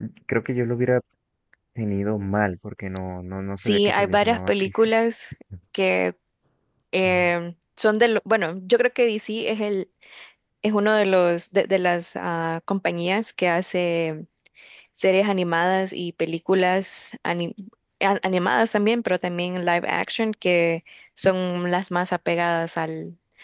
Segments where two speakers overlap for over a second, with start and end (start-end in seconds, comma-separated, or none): 3.6-4.9